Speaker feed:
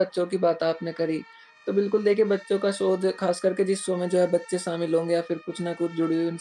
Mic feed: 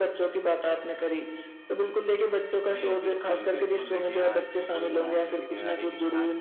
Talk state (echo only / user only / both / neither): both